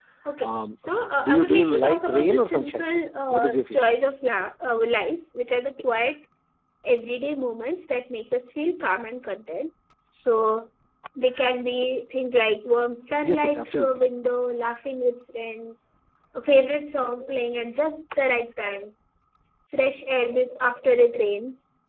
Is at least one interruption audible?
Yes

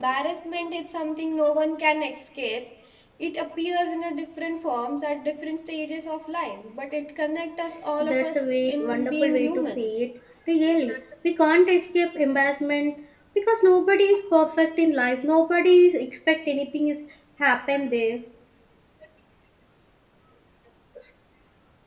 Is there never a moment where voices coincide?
No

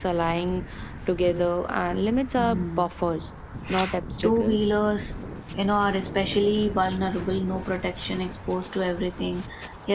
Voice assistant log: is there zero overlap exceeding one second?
Yes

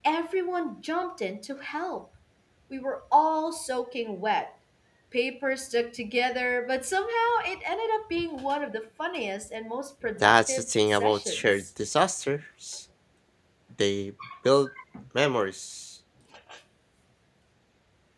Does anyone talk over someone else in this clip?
Yes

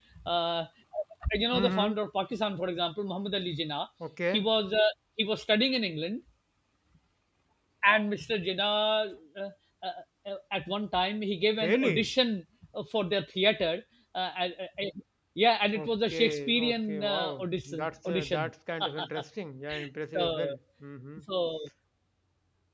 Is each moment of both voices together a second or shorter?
No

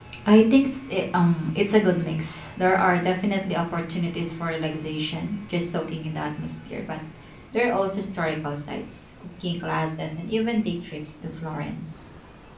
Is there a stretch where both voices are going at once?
No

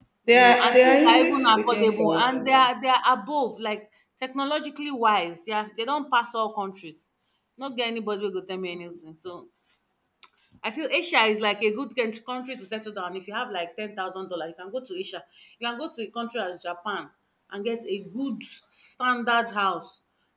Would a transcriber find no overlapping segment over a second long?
No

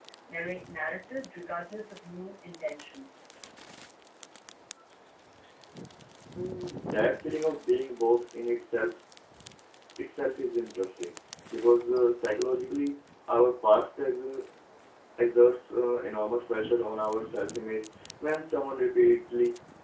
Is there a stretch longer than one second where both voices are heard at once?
No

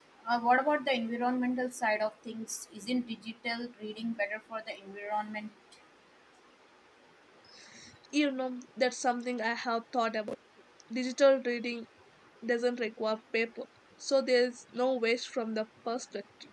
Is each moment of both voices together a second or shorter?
Yes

